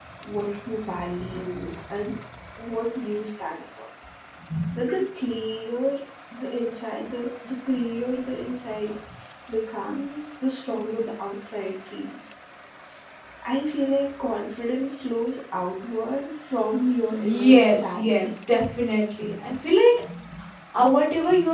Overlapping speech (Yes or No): Yes